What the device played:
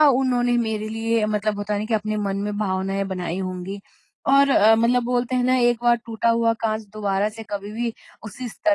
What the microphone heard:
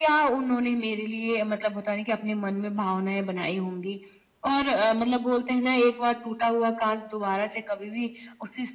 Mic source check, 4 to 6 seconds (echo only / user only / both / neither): echo only